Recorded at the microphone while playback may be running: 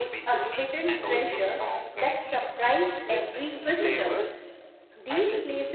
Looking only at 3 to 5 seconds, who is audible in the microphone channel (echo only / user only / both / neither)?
both